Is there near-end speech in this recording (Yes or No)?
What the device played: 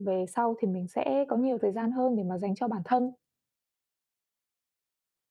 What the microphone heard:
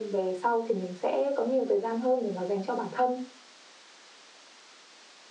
No